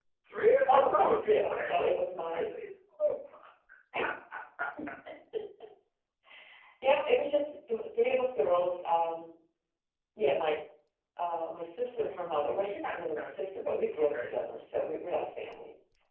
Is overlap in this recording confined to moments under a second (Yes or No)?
No